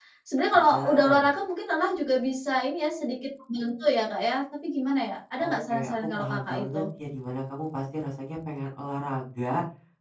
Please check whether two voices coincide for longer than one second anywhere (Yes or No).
Yes